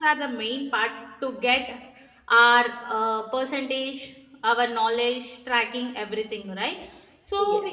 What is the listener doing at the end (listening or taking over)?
listening